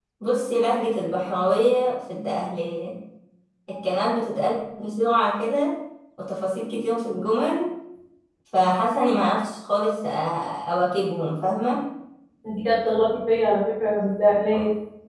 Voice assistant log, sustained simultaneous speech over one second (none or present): none